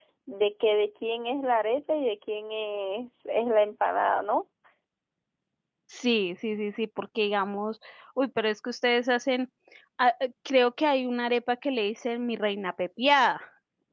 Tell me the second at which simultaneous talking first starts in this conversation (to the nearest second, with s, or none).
none